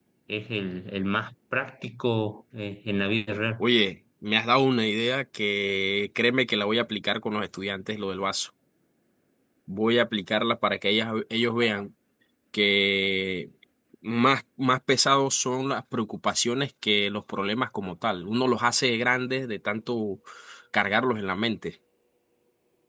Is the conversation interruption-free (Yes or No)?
Yes